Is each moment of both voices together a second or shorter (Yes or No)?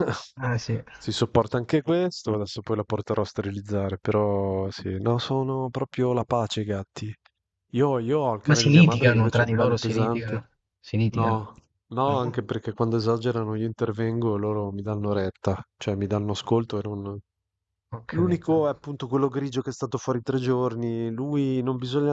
No